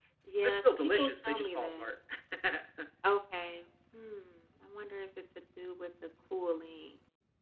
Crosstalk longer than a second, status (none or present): present